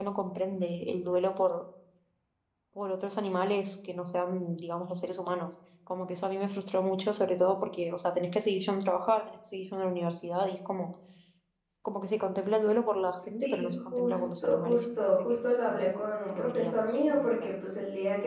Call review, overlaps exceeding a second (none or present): present